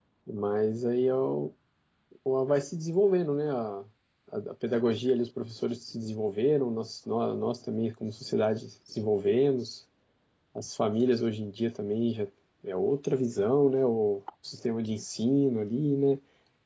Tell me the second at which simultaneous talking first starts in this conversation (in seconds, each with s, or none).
none